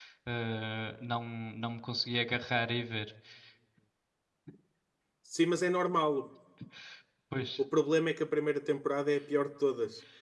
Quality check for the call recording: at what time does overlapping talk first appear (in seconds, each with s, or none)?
none